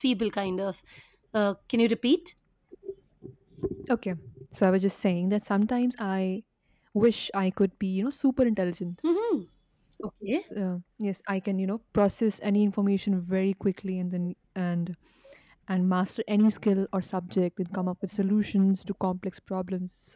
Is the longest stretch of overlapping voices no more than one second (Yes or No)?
Yes